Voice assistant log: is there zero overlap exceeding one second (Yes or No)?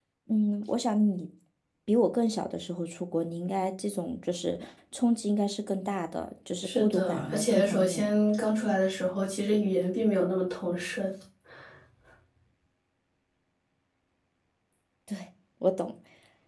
No